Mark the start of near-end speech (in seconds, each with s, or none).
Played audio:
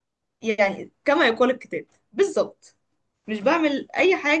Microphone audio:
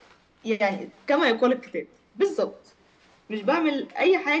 none